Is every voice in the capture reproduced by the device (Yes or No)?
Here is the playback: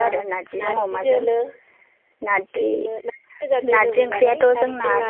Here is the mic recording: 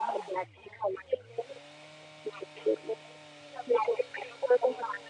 Yes